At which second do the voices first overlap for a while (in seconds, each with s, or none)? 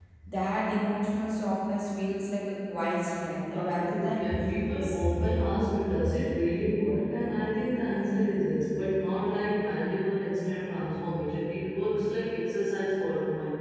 3.5 s